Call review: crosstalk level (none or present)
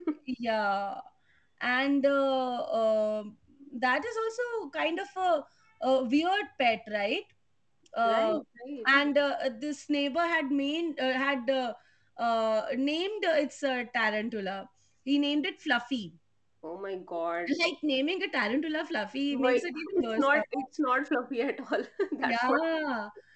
present